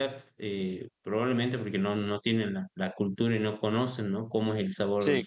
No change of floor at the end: Yes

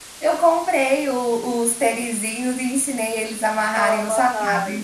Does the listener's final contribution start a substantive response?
No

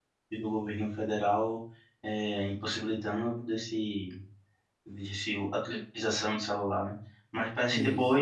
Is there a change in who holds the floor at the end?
No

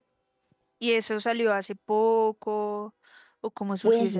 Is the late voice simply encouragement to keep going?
No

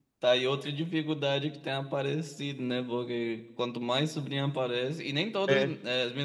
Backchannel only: Yes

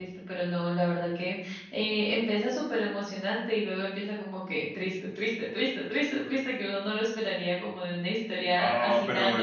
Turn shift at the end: Yes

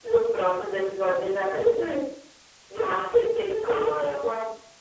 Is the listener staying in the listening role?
Yes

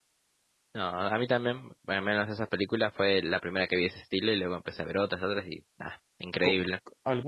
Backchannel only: No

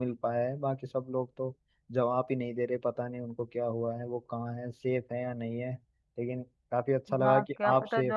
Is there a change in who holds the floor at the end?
Yes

